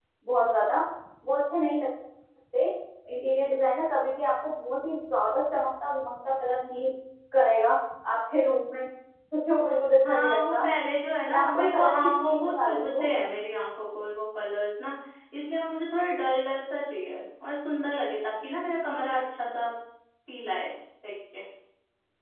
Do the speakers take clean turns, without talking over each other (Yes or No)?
No